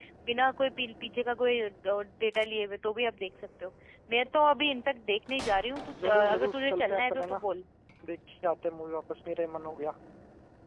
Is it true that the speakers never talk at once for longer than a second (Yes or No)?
No